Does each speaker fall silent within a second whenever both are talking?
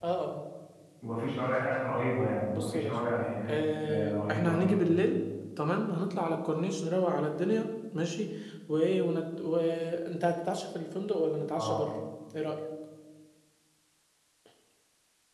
No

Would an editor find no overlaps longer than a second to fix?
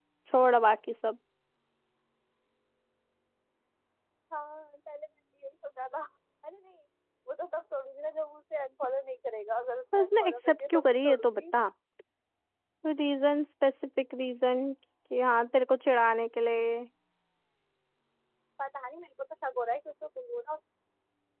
No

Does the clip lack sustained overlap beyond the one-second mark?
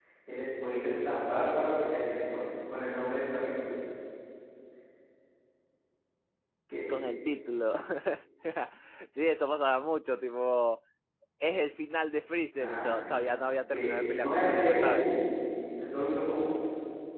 No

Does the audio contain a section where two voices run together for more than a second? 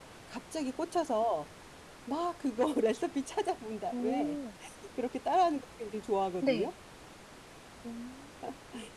No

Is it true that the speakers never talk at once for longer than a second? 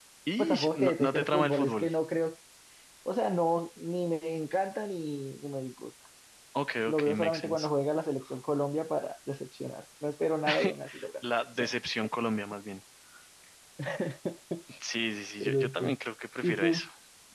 No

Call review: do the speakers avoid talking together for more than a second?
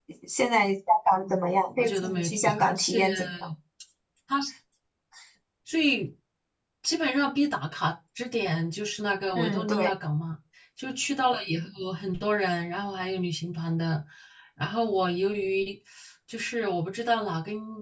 No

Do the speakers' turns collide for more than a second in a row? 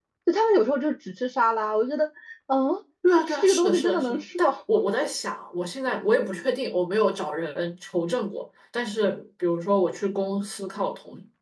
Yes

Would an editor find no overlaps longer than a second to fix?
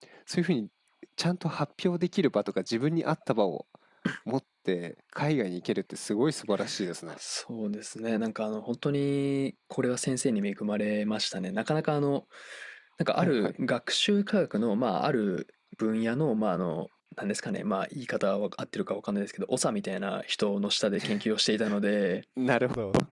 Yes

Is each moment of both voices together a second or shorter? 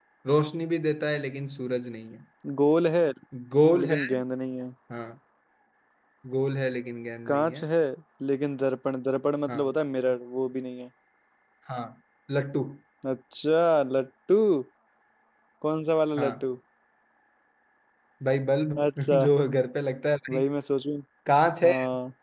Yes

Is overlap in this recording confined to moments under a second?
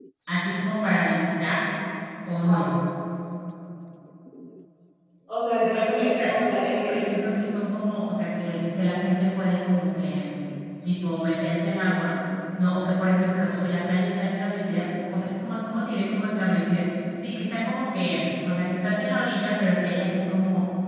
No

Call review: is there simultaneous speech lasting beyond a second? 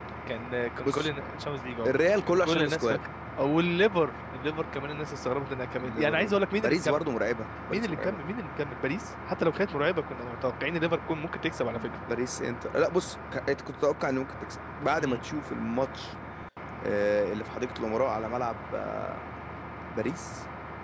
Yes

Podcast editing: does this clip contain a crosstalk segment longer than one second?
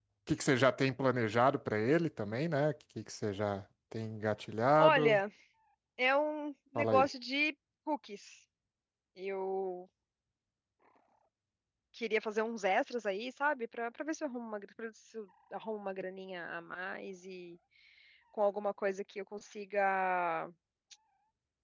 No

